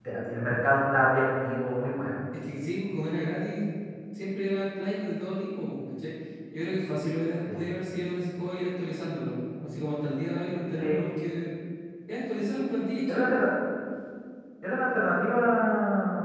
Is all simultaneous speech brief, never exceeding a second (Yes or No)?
Yes